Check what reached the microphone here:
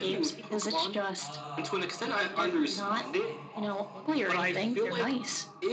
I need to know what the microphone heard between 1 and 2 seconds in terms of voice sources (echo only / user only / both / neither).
both